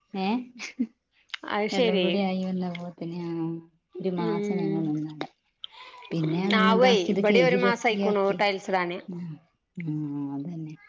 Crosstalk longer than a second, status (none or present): present